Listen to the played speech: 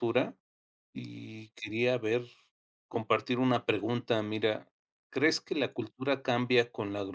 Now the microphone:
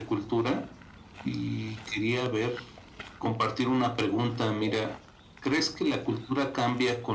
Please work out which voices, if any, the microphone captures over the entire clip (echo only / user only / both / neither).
both